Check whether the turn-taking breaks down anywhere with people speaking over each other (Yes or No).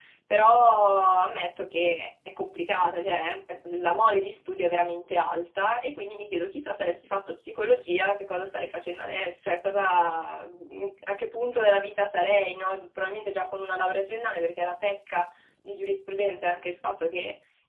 No